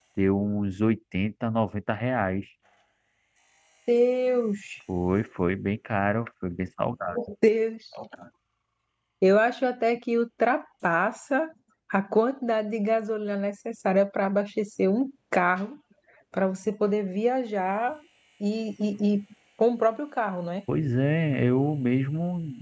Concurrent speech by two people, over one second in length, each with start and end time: none

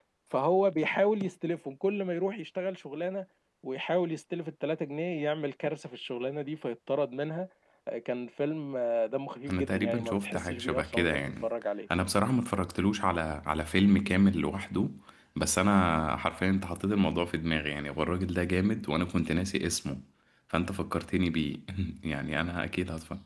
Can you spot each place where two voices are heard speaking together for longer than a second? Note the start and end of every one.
9.5-11.5

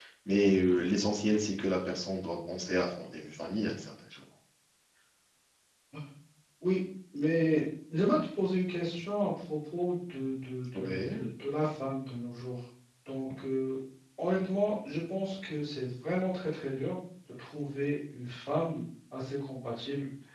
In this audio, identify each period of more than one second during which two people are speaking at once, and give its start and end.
none

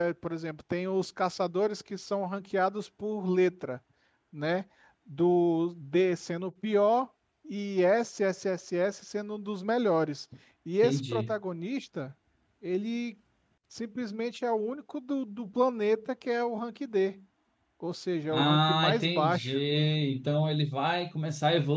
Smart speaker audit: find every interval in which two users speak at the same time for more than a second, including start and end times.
18.3-19.5

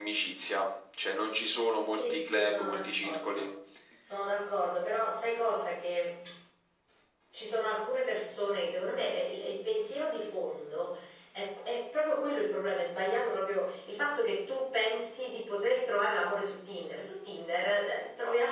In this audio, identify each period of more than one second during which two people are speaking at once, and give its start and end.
2.0-3.5

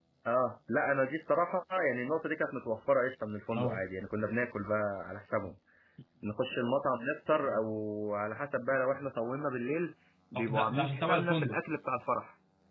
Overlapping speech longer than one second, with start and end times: 10.3-11.6

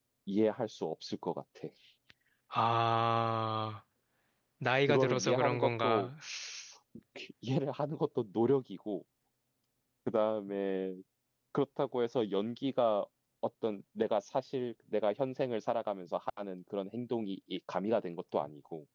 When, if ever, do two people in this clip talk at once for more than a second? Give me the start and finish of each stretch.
4.9-6.1

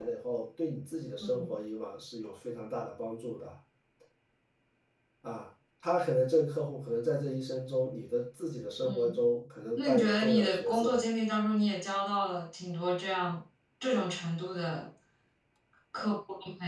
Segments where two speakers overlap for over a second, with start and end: 9.8-11.0

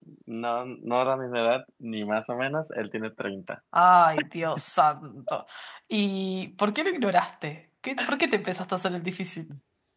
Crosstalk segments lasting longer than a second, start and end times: none

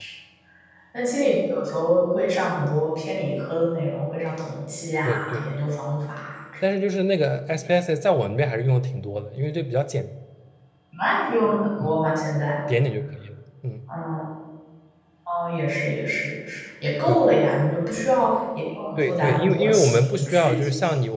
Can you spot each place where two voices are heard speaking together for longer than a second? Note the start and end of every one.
19.0-20.5

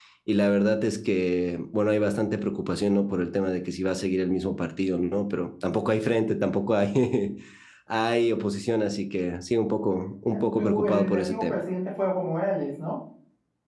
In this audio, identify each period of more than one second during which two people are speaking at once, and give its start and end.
10.3-11.6

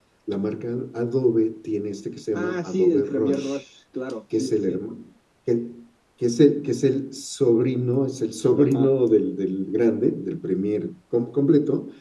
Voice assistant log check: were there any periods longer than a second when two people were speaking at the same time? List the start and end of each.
2.3-3.6

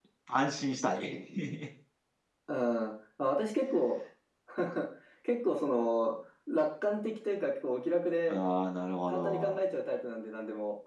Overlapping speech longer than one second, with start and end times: none

